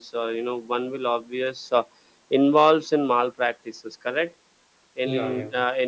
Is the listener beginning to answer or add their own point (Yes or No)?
No